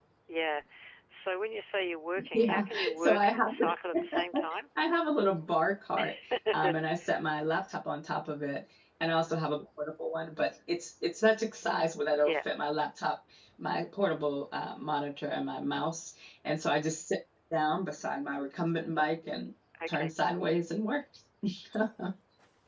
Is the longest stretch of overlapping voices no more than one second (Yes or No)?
No